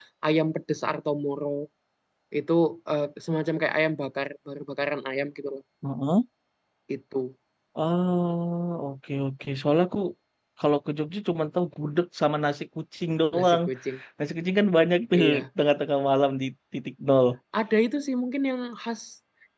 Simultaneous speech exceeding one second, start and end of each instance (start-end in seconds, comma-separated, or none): none